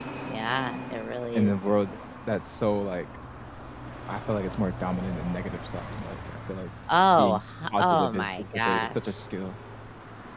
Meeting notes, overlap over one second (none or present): present